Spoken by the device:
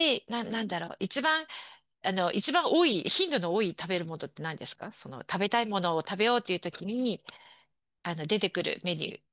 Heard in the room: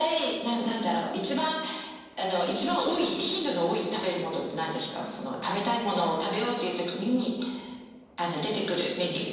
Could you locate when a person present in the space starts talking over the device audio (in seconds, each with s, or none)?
none